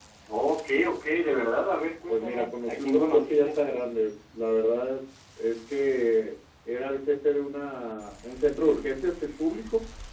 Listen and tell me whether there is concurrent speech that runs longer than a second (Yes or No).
Yes